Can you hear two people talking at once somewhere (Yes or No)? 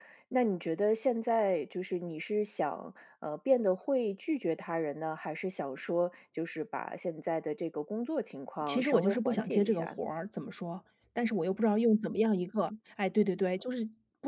Yes